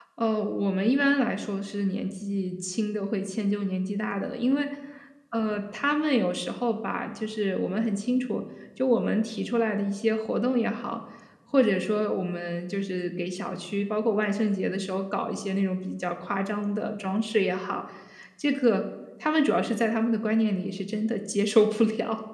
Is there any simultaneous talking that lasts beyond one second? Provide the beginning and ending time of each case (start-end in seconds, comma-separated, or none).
none